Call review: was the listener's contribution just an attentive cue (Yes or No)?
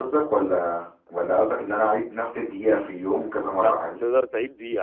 No